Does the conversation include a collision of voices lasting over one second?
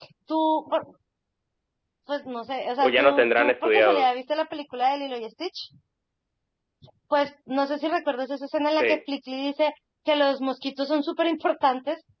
Yes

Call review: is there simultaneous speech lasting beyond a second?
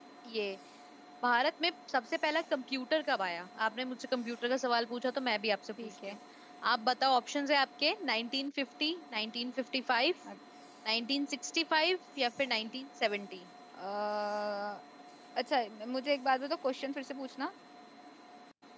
No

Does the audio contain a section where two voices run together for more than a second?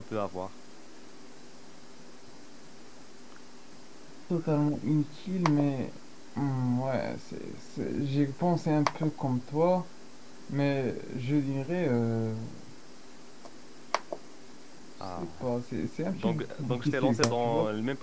Yes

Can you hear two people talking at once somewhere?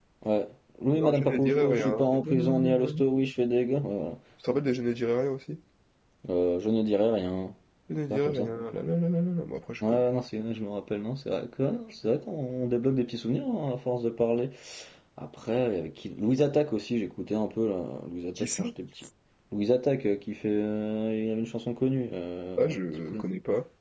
Yes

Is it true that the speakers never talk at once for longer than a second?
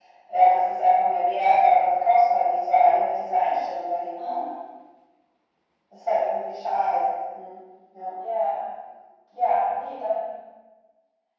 Yes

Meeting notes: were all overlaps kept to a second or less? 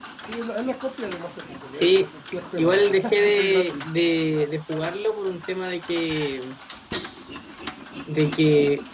No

